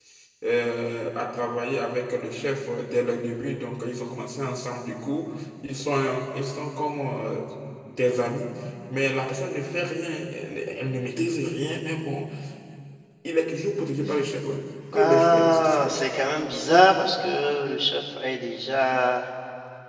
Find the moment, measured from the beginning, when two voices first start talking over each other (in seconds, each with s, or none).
14.9 s